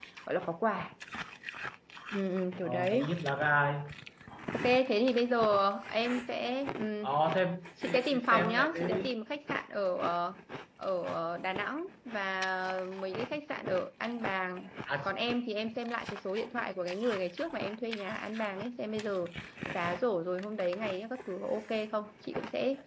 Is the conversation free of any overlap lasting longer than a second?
No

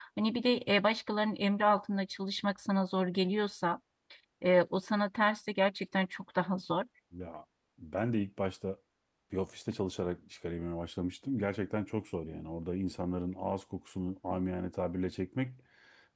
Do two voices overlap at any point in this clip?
No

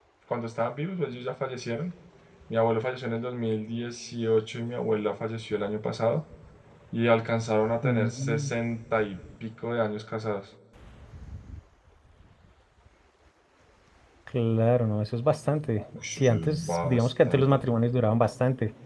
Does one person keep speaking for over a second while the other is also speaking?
Yes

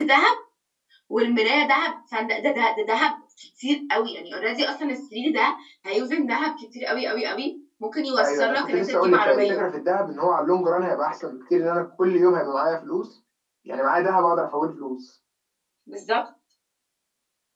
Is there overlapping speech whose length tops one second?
Yes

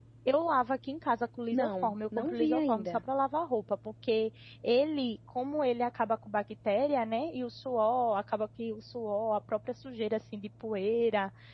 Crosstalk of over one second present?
Yes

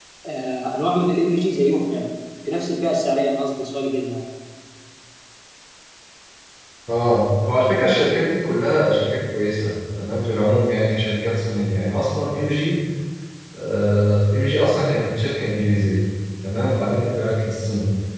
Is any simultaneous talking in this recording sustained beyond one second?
No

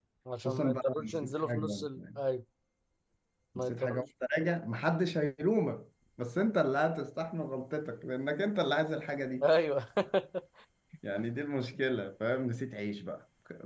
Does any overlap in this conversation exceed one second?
Yes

